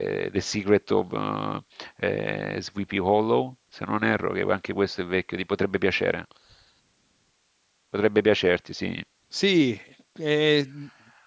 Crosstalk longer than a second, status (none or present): none